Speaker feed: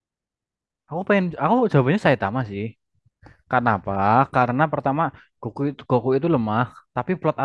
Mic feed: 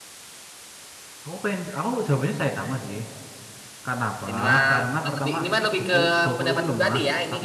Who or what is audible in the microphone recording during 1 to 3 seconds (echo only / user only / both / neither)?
echo only